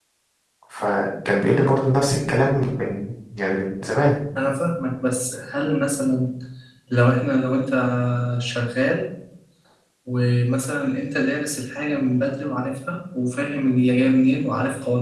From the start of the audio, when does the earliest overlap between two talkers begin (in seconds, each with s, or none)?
none